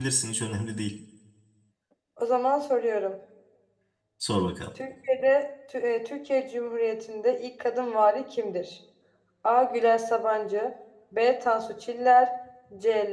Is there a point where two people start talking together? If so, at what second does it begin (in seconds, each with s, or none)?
none